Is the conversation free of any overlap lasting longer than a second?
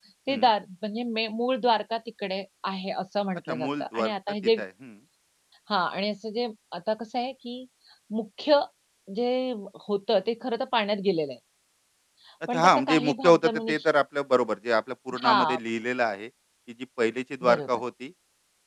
No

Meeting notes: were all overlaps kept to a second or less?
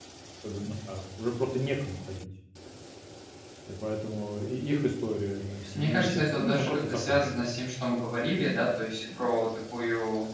No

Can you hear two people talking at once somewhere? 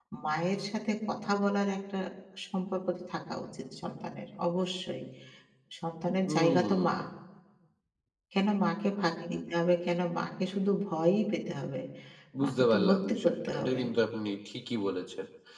Yes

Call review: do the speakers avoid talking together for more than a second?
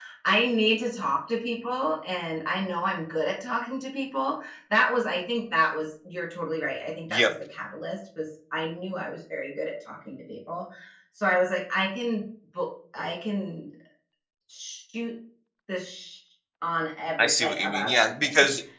No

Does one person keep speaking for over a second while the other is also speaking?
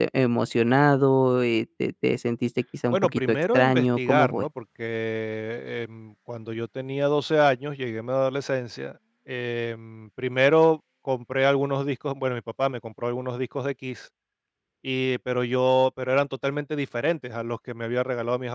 Yes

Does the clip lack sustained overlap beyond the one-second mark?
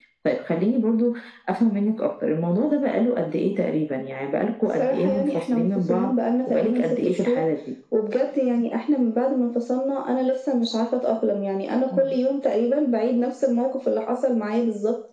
No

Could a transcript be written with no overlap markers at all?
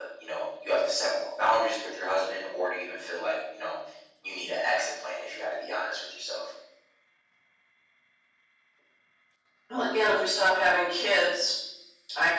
Yes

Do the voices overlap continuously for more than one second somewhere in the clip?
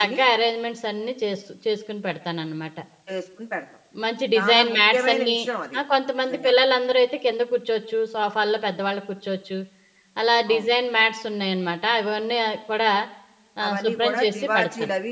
Yes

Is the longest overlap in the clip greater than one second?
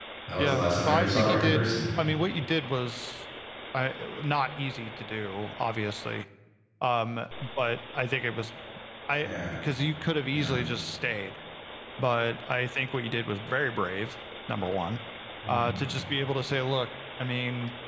Yes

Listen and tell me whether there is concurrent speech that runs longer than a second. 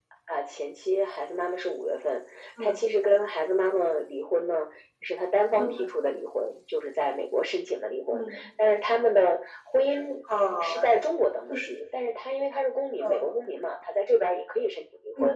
No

